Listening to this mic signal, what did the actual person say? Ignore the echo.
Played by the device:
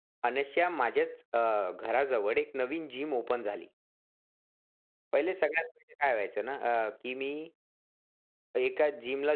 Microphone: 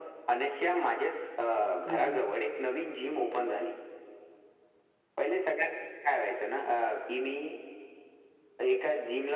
हं, हं.

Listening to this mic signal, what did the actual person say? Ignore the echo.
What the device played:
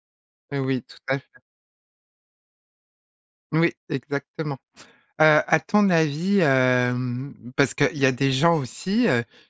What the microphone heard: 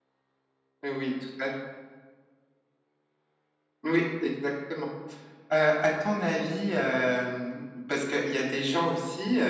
none

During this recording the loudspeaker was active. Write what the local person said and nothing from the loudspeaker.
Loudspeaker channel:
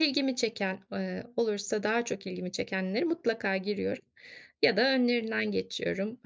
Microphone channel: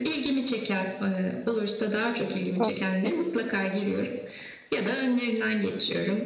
Çok haklısın.

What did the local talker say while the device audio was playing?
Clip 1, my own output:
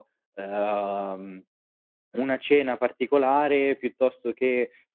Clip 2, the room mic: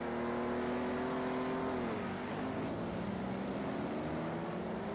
none

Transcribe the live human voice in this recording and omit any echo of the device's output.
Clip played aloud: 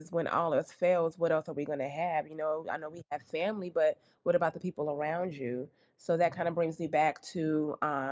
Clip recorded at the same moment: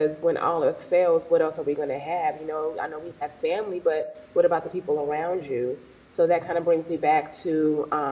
none

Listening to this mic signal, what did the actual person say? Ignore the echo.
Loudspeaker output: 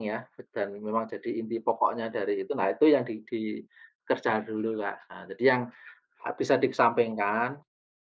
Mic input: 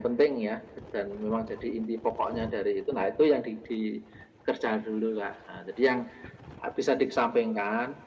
none

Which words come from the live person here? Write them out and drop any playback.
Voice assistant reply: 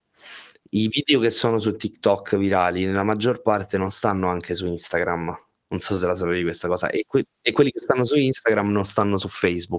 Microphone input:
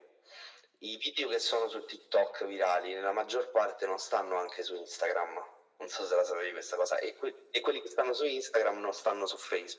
none

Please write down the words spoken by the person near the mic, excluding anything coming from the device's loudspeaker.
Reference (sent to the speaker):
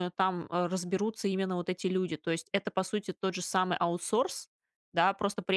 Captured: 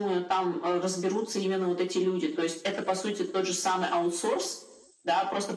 none

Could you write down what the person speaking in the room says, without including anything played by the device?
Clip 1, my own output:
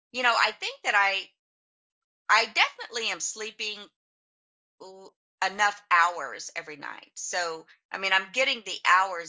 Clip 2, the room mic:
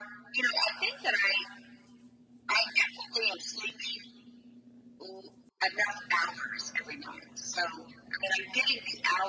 none

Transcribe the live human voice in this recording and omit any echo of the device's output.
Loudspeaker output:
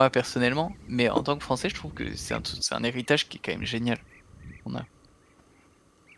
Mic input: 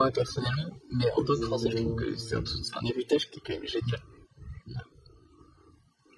Exactement.

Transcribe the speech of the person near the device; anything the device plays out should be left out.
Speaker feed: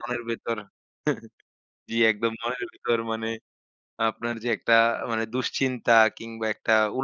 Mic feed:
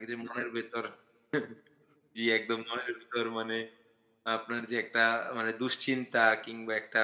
none

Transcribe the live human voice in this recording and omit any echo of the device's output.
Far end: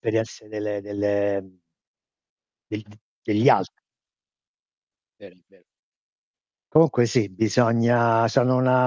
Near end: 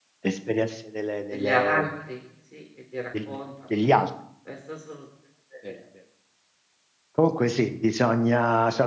Degli altri, sì, che ti raccontano. Questo è assolutamente vero.

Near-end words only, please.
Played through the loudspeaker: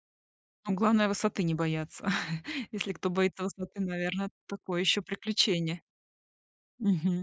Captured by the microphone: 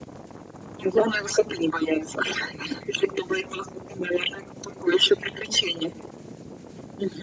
none

